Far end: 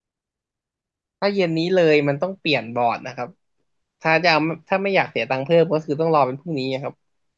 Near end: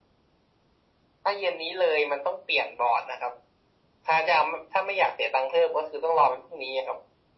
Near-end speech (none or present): none